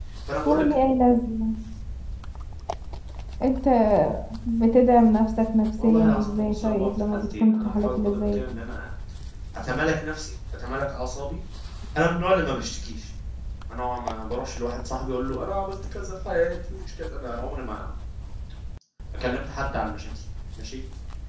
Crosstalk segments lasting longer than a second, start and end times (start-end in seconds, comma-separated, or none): 5.8-8.4